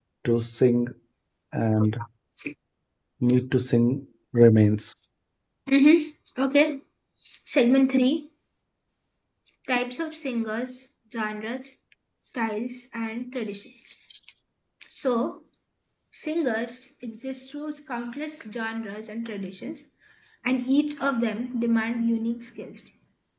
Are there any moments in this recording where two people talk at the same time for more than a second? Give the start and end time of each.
none

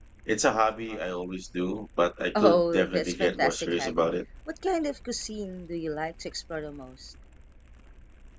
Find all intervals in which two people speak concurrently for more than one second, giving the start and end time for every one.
2.3-4.0

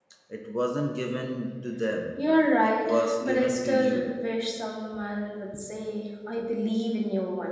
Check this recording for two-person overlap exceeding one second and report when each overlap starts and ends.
2.6-4.1

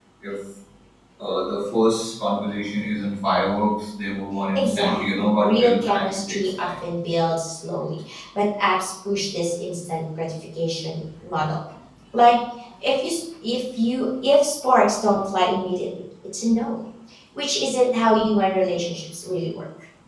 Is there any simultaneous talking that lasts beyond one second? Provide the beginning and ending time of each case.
4.5-6.7

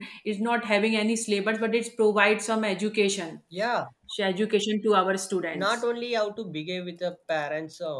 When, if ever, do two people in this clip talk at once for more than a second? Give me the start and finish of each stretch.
none

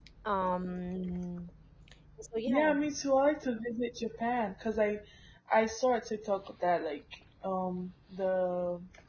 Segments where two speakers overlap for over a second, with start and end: none

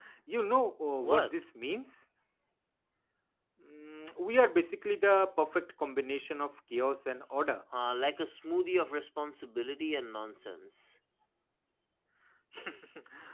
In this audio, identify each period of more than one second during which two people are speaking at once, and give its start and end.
none

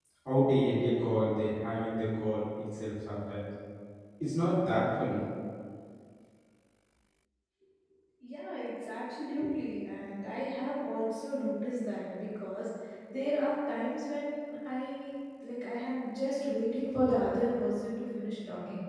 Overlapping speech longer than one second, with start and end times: none

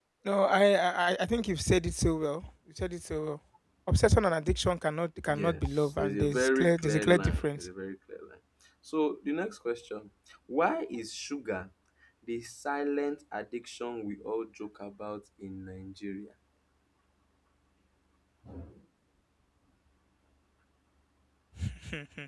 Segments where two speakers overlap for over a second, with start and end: 5.3-7.7

